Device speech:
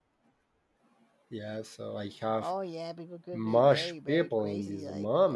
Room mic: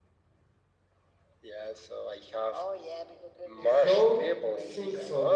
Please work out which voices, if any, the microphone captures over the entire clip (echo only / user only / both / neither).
both